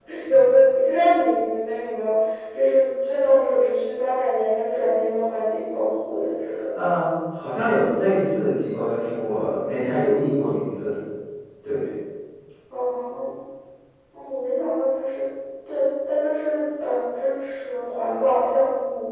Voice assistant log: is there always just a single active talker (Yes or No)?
Yes